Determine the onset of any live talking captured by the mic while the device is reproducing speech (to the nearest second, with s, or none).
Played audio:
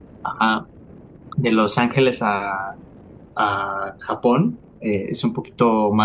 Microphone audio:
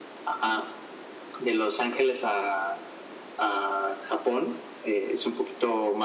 none